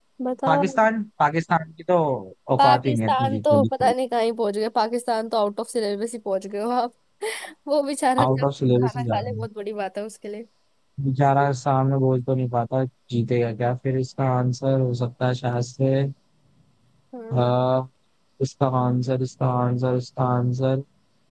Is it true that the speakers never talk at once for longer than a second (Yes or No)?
No